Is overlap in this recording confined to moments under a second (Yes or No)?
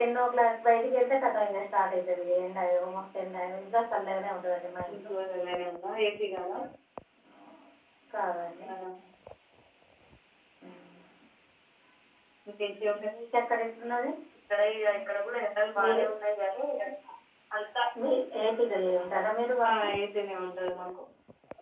Yes